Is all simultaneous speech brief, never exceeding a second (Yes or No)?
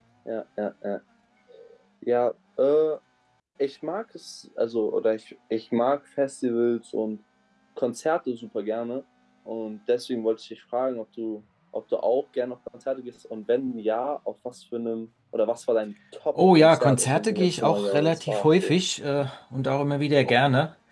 No